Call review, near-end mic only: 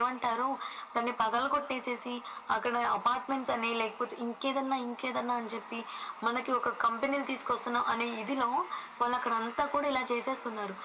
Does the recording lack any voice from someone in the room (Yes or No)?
Yes